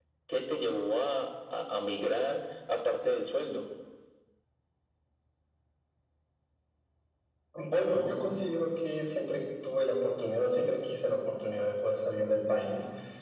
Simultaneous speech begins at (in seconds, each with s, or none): none